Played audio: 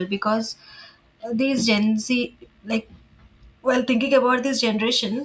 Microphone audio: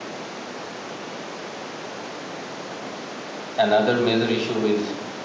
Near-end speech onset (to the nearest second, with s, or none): 4 s